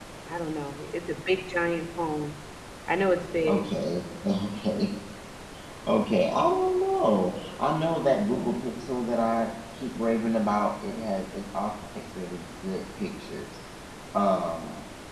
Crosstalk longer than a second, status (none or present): none